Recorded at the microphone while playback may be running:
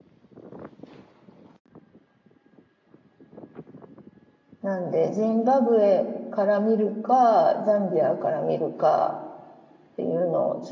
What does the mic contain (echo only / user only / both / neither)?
user only